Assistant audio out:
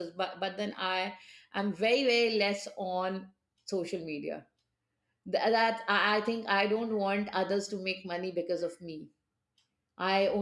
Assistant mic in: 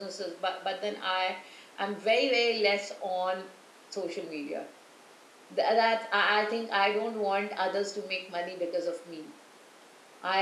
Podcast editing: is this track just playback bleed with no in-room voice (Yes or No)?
Yes